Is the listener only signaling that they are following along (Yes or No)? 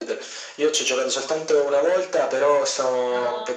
Yes